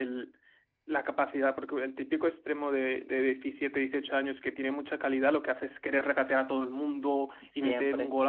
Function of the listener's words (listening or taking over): listening